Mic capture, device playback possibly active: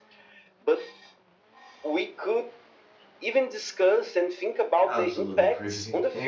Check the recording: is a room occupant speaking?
Yes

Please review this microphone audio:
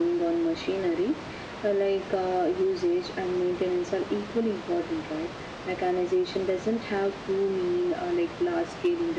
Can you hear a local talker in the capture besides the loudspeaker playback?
No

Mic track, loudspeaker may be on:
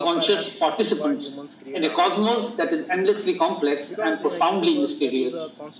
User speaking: Yes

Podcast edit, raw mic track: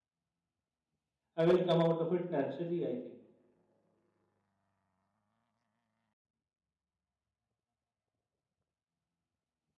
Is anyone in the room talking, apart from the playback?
Yes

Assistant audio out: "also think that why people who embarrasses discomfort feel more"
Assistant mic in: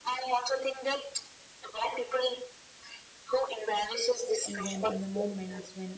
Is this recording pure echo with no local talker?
No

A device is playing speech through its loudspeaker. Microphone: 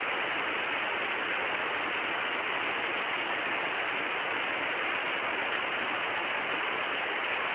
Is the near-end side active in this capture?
No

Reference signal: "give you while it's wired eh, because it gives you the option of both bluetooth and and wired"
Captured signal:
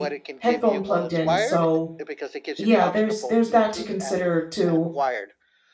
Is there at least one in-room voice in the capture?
Yes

